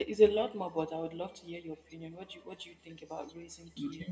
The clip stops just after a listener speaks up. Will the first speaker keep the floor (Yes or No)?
No